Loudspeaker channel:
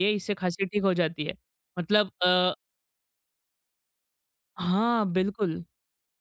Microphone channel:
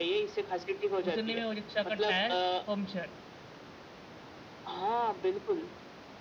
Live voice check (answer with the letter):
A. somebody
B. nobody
A